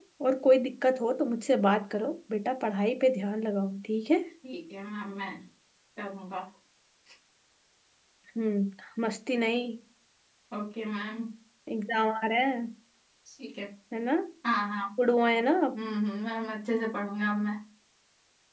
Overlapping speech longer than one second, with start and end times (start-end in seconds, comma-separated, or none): none